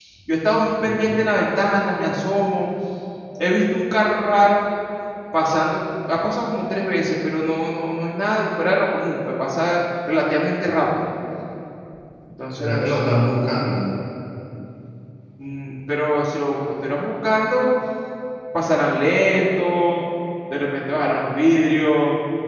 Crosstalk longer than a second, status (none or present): none